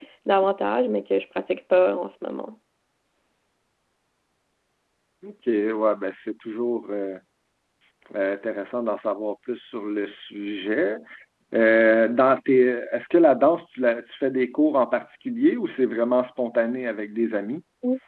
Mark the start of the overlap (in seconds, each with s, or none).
none